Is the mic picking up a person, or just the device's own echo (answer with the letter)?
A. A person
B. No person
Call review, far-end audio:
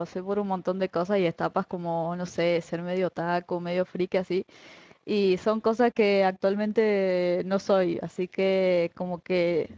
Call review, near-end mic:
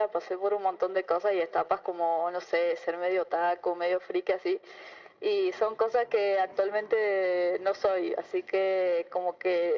B